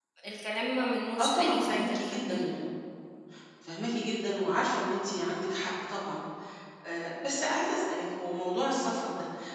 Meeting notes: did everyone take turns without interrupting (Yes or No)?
No